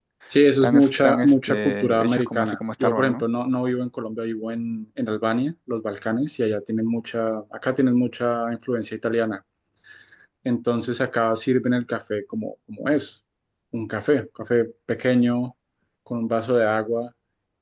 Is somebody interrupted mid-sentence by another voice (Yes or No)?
Yes